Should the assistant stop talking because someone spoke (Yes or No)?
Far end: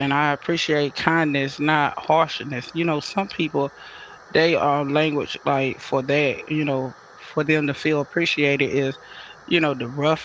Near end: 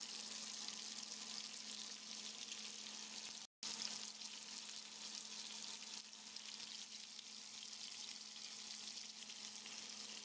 No